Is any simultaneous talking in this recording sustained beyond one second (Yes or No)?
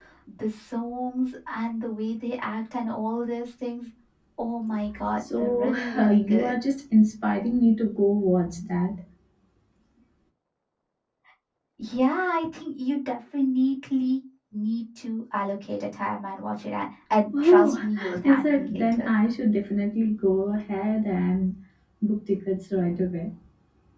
Yes